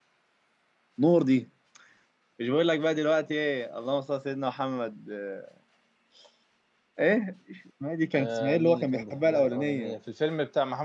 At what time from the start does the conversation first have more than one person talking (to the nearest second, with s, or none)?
8 s